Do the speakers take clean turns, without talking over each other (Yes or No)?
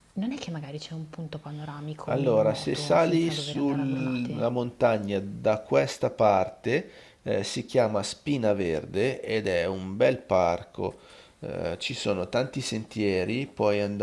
No